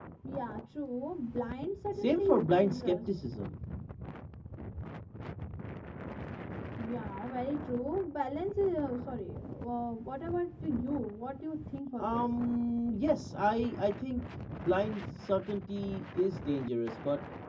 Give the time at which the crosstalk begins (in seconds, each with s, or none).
1.9 s